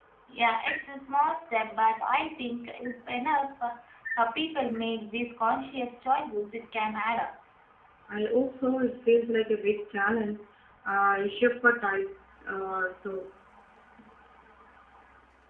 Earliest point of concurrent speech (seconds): none

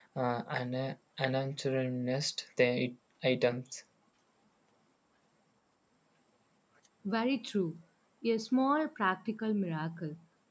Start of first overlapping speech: none

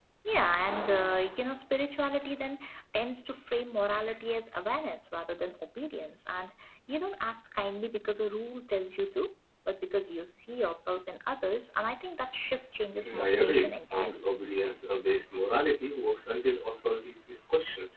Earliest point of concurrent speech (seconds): 13 s

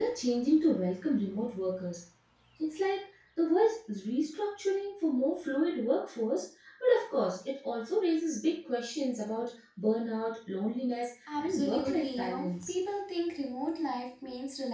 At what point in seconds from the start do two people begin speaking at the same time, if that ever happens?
11 s

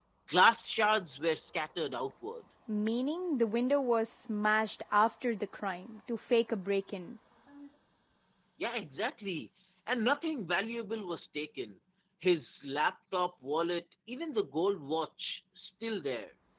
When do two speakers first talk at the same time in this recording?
none

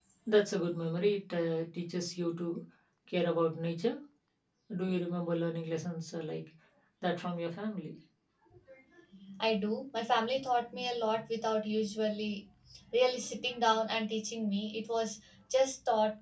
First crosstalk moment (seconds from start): none

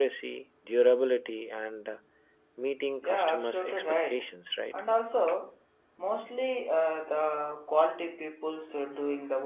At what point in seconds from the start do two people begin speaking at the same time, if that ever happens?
3 s

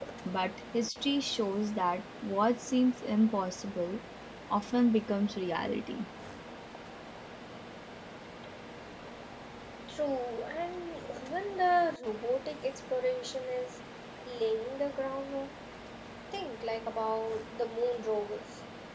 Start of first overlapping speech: none

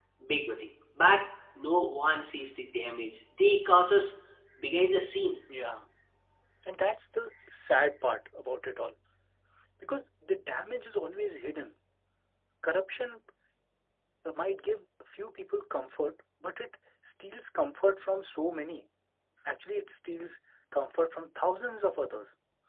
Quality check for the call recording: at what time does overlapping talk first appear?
none

